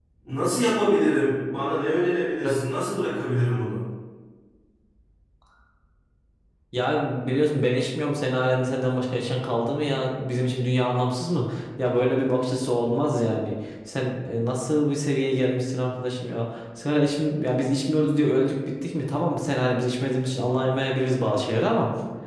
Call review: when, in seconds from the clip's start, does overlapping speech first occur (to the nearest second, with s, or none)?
none